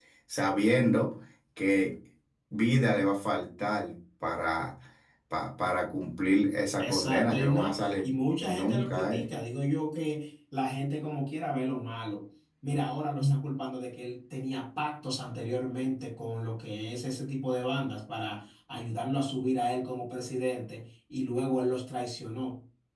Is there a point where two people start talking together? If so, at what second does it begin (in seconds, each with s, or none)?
6.8 s